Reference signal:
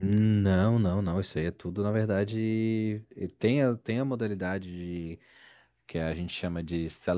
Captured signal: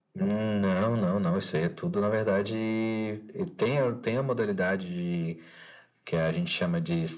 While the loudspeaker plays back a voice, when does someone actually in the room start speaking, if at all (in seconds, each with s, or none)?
none